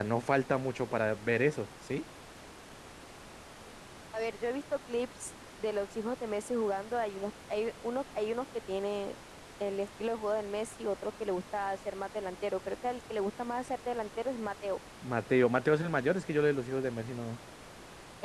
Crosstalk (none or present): none